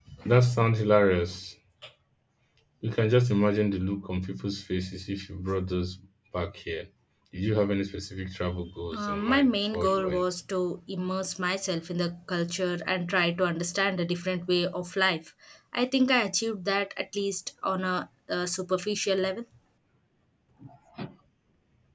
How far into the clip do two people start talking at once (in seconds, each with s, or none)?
8.9 s